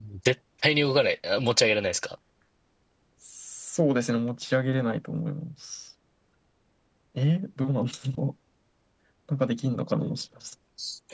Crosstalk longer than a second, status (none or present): none